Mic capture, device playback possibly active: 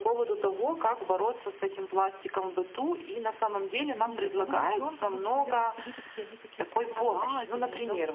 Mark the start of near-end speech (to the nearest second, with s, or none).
4 s